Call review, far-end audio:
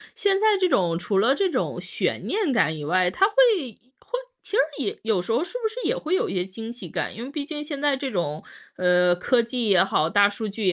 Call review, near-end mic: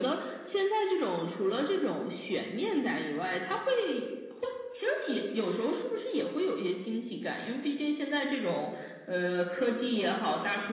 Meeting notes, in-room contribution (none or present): none